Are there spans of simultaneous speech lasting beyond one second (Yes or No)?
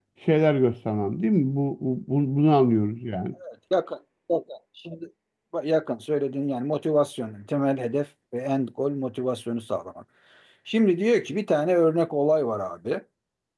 No